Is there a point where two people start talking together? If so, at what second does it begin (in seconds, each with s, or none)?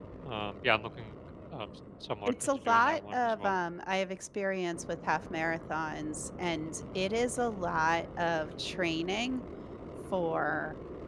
2.3 s